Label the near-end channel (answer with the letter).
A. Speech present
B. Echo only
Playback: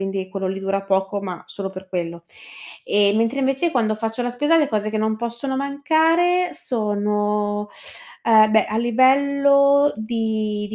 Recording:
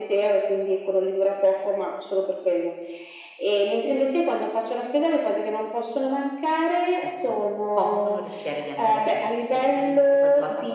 A